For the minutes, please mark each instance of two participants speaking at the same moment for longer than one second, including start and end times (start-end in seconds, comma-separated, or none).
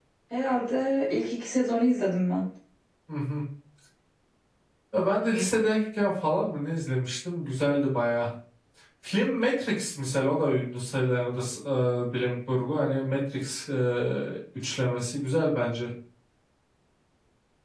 none